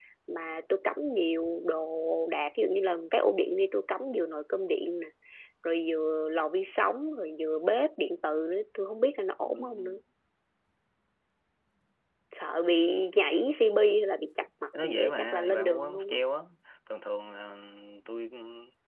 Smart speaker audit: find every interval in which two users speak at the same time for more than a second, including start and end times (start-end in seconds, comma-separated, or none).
14.8-16.2